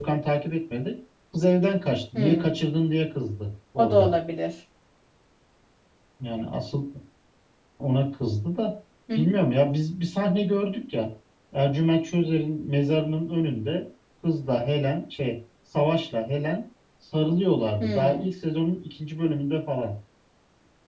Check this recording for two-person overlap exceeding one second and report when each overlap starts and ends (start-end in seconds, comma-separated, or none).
none